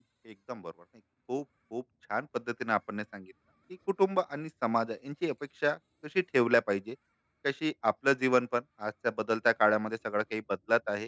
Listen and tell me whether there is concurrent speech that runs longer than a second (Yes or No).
No